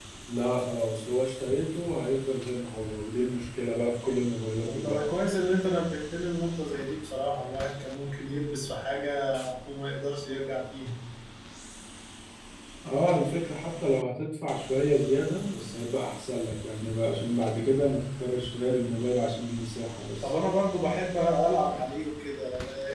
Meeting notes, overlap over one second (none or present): none